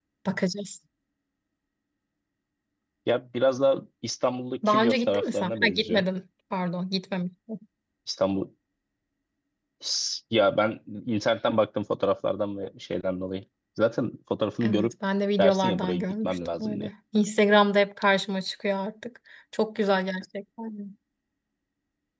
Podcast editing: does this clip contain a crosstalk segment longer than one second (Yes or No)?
Yes